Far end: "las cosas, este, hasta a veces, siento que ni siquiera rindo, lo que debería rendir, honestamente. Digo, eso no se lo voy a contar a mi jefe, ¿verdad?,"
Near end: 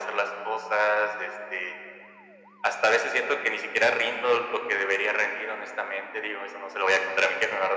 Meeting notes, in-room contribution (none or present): none